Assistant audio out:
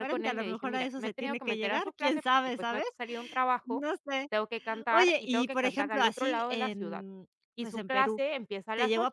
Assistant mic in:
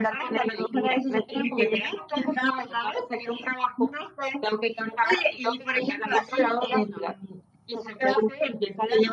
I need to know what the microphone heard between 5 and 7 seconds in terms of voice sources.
echo only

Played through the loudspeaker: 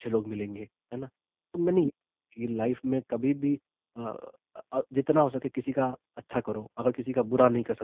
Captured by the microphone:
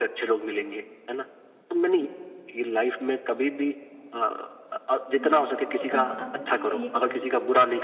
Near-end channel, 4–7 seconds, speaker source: both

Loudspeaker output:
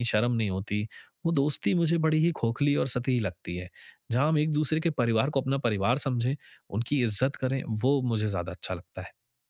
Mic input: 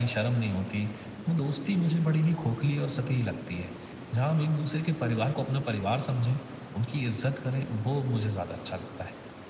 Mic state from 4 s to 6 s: echo only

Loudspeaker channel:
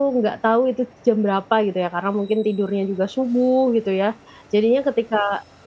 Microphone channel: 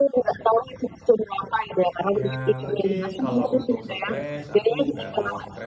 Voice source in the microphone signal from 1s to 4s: both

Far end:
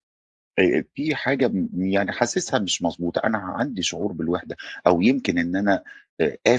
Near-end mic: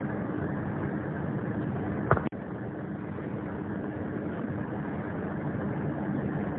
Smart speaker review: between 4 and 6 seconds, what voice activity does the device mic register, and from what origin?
neither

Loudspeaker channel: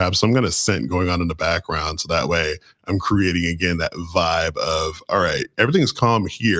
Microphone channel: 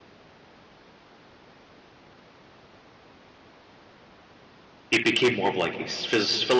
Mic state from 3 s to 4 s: neither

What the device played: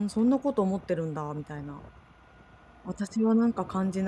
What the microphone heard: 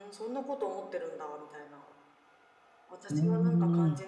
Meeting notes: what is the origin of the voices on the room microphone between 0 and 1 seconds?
echo only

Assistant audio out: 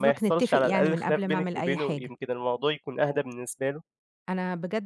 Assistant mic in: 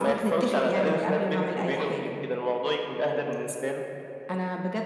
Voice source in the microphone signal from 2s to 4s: echo only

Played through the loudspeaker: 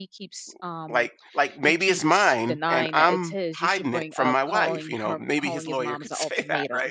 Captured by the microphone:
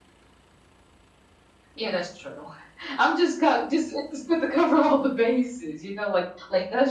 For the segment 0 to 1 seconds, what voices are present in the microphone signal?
neither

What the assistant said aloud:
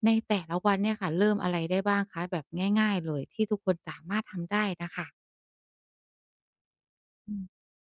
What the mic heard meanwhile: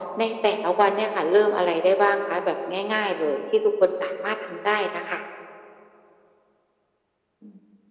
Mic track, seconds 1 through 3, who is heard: echo only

